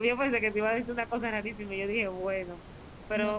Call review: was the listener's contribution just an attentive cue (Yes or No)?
Yes